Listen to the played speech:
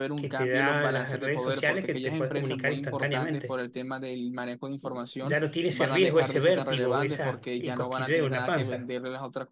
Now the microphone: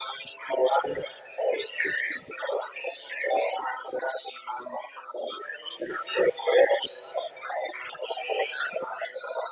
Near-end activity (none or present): none